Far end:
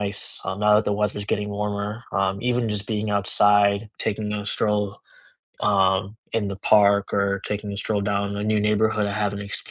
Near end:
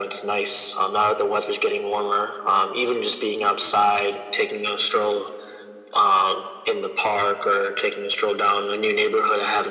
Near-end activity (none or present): none